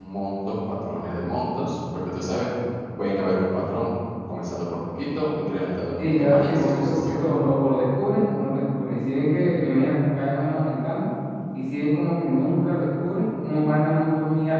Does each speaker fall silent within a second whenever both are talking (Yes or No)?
No